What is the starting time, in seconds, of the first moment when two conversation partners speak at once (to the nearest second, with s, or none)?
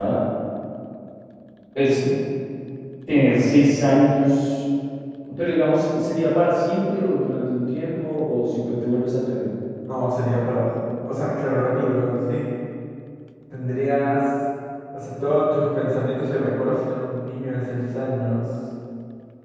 none